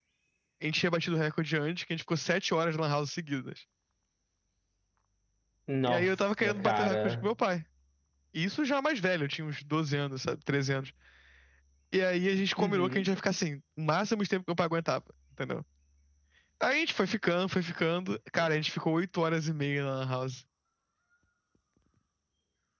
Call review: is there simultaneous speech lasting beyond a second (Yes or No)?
Yes